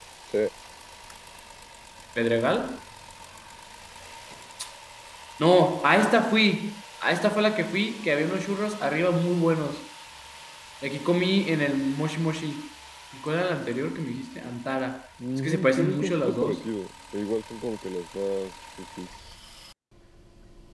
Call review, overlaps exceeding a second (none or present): present